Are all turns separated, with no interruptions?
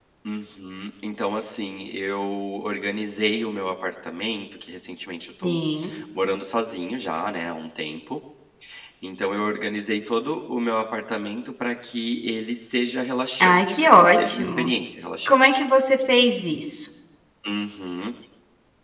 No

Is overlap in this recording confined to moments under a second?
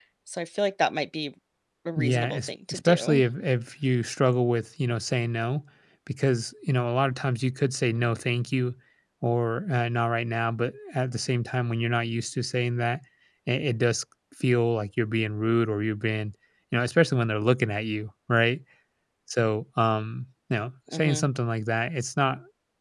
No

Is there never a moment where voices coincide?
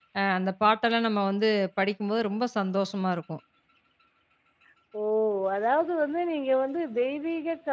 Yes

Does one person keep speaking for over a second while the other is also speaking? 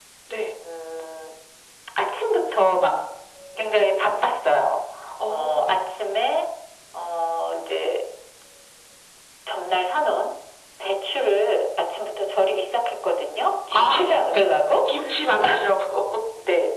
No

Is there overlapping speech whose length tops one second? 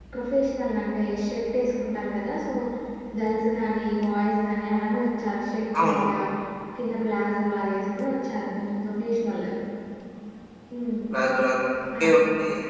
No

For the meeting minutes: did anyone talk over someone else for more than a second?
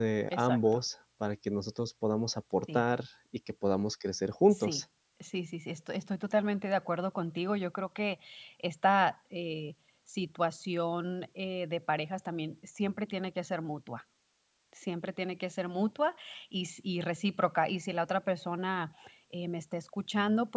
No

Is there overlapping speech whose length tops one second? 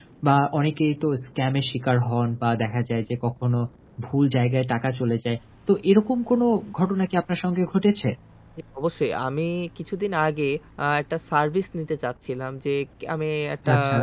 No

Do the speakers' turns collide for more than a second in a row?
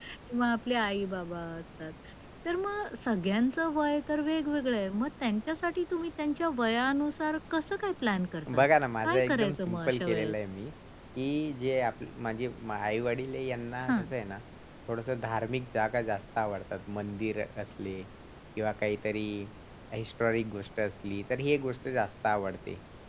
Yes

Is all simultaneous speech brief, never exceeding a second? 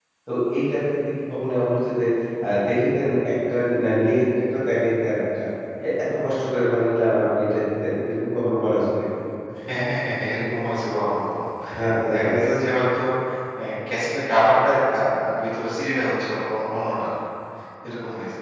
Yes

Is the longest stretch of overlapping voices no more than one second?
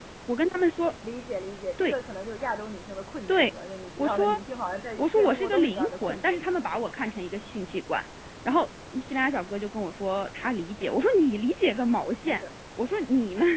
No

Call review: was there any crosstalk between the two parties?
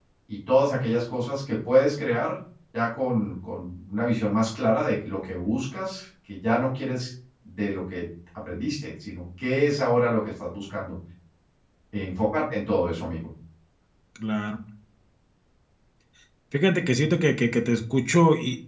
No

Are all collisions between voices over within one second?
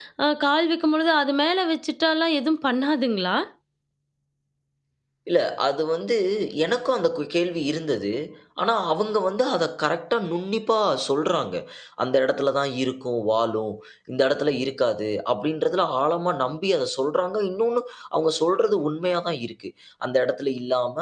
Yes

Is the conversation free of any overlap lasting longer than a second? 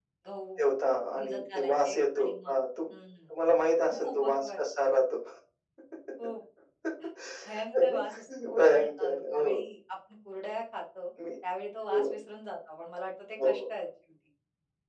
No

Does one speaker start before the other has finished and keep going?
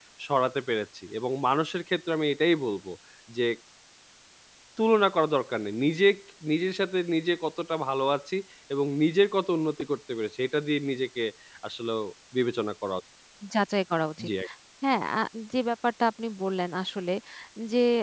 No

